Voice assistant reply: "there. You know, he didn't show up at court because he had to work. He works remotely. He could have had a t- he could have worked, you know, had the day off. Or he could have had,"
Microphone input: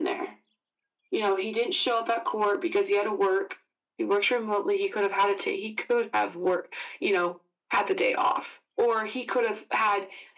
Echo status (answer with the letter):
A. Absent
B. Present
B